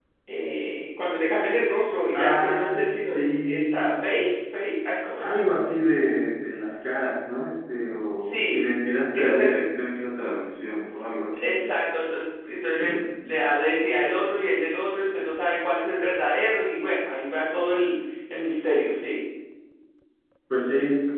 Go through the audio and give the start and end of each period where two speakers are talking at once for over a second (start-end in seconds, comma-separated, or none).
2.1-3.8